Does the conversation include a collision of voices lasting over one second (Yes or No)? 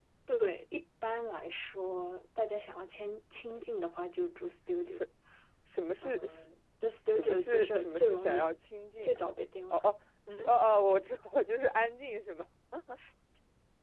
Yes